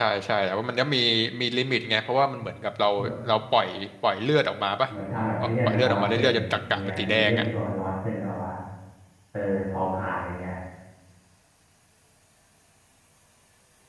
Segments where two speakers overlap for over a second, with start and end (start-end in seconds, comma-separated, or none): 5.4-7.5